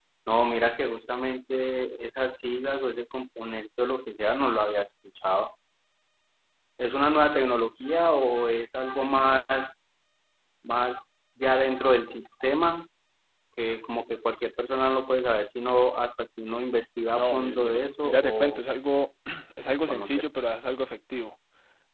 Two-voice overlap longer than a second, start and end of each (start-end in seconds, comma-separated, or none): 17.1-18.6